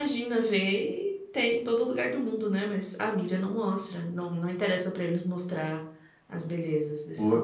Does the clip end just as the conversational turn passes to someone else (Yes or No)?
Yes